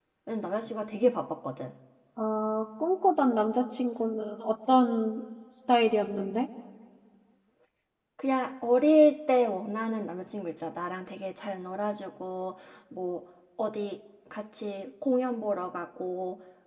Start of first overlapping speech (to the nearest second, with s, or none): none